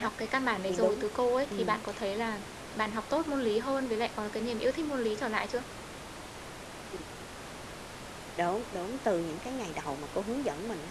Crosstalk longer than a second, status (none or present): none